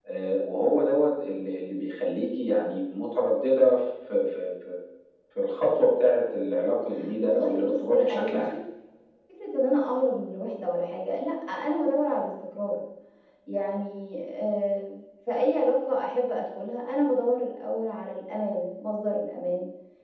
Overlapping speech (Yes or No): Yes